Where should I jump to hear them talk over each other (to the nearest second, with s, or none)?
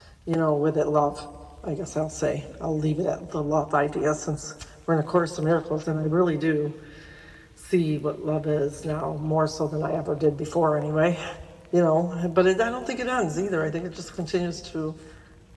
none